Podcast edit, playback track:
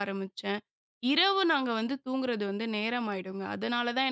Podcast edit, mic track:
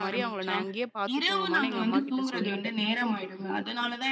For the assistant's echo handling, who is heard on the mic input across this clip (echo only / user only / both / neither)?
both